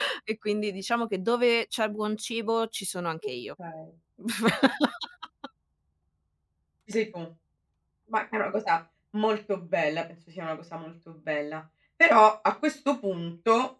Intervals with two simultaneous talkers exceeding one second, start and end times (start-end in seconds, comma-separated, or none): none